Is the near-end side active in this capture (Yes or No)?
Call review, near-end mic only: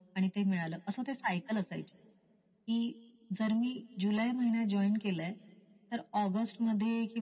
No